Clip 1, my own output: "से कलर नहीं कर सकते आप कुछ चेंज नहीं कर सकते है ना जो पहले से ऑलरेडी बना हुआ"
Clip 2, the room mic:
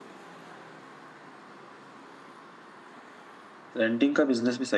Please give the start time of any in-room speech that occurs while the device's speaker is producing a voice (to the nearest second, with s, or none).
4 s